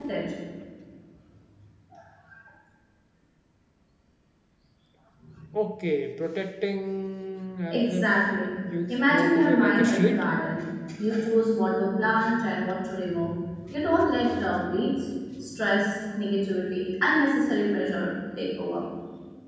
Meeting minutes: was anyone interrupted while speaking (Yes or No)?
Yes